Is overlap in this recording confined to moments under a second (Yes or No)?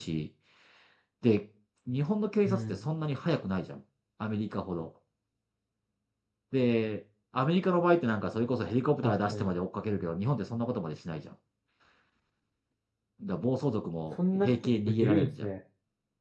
No